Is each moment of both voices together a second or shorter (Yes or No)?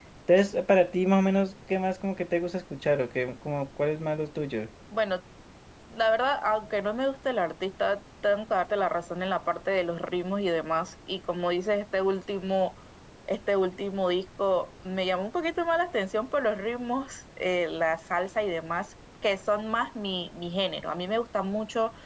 Yes